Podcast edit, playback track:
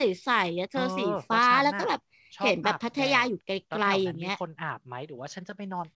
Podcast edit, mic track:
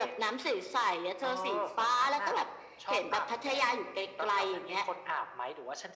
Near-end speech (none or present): none